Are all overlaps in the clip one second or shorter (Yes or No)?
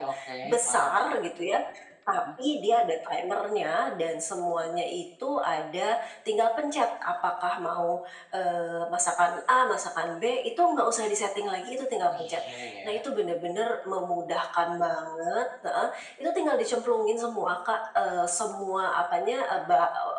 Yes